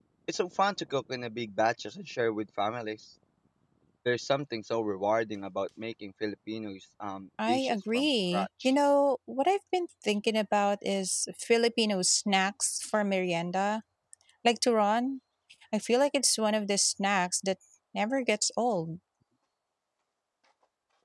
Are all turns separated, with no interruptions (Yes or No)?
No